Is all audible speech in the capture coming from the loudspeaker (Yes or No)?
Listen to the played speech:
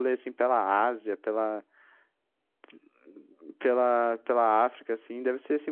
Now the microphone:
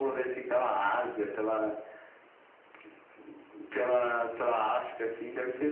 No